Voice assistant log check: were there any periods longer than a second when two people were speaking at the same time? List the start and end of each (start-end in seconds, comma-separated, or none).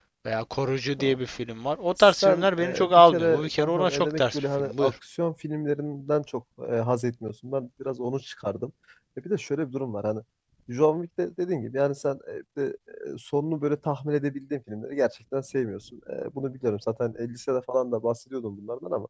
2.0-4.9